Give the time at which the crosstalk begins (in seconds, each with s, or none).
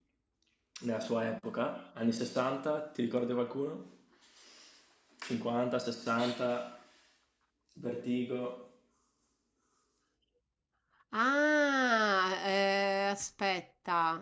none